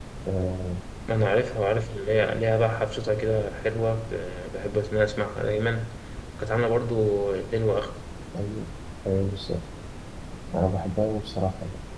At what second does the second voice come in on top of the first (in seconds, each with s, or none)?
none